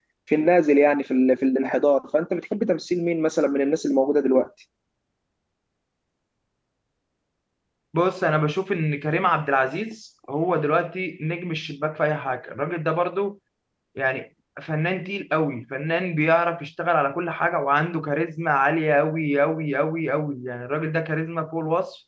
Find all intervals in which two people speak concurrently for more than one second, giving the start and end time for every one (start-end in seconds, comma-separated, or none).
none